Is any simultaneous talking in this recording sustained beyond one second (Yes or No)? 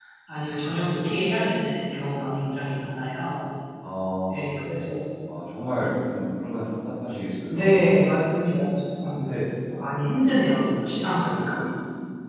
No